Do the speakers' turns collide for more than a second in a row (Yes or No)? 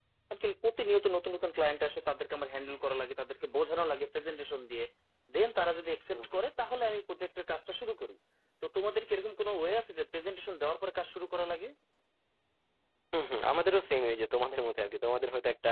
No